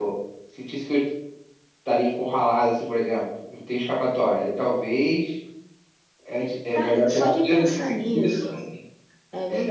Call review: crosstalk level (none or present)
present